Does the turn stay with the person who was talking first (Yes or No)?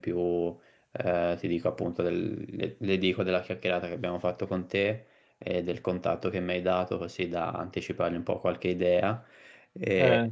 Yes